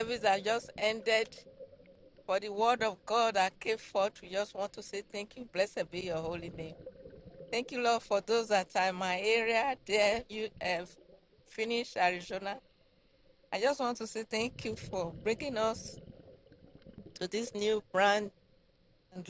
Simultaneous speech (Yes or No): No